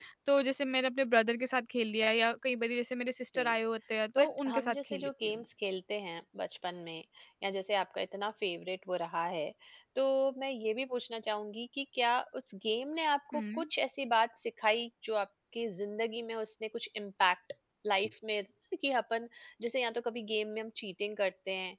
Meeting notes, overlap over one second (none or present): present